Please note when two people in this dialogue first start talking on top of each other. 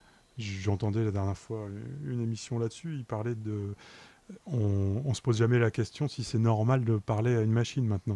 none

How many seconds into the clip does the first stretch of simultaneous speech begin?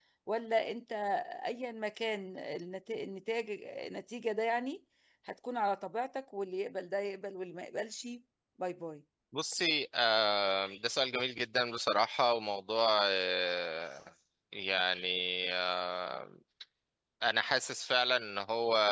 none

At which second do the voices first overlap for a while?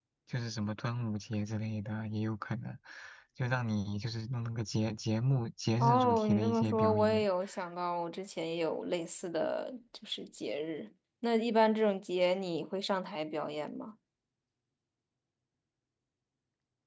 5.8 s

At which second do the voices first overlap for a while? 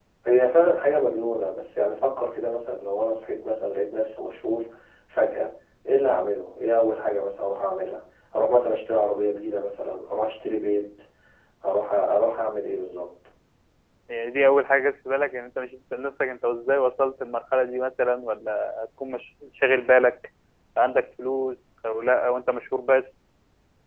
none

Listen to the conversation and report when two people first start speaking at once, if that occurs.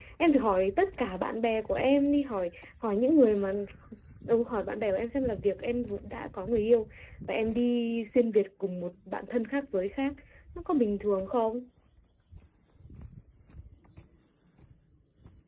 none

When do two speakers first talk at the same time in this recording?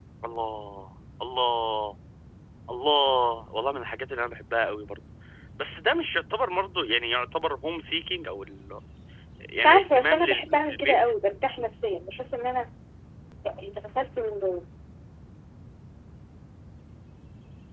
9.6 s

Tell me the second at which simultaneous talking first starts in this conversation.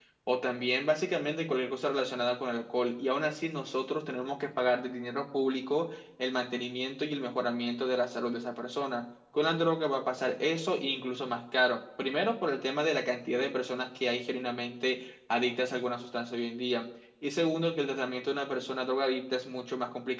none

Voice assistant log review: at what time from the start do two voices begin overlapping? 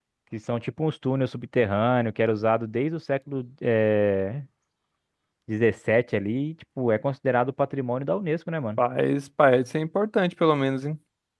none

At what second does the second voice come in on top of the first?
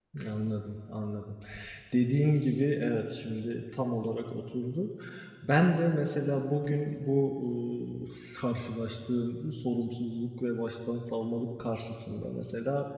none

